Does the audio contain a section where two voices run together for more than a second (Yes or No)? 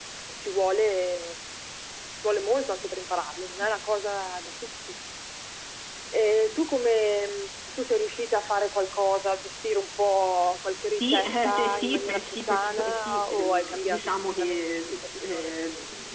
Yes